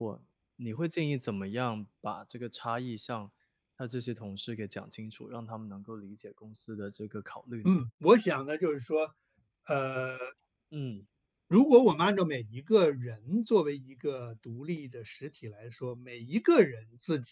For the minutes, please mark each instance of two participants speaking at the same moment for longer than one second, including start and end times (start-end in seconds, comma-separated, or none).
none